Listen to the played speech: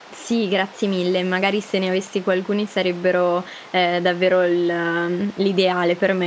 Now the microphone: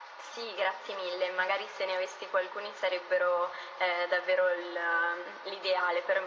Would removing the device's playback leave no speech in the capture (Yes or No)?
Yes